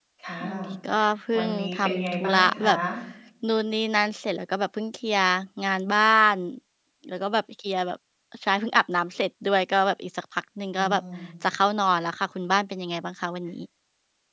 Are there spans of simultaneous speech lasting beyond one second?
Yes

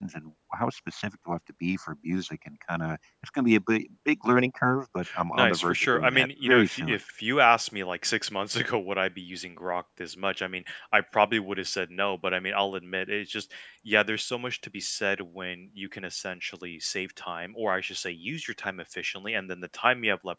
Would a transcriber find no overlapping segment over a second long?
No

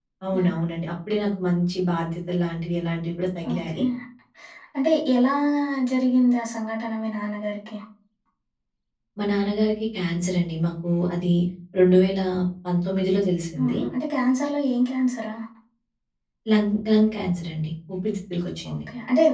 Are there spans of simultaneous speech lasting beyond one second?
No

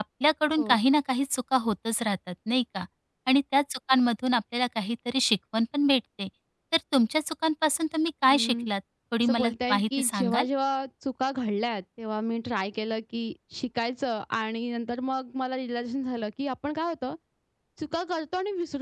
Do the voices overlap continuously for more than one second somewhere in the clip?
Yes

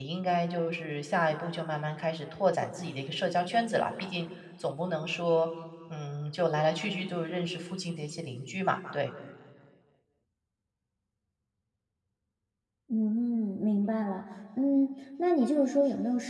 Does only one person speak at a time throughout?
Yes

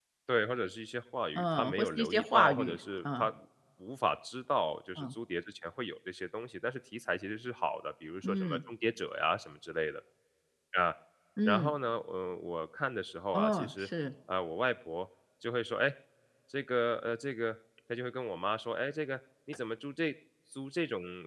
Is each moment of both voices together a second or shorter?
No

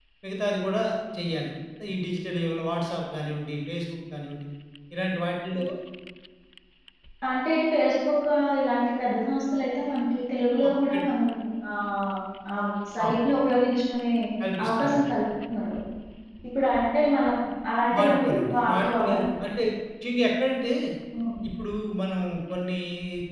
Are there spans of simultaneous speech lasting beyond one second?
Yes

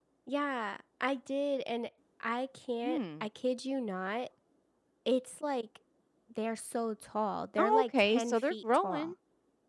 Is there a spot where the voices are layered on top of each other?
Yes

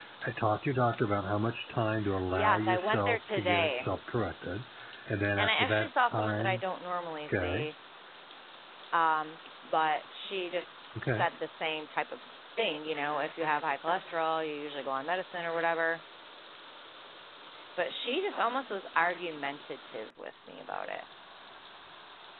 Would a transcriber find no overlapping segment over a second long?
No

